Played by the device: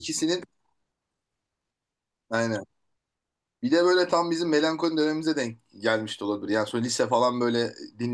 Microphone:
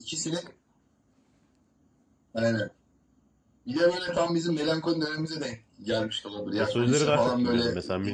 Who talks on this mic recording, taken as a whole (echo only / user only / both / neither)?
both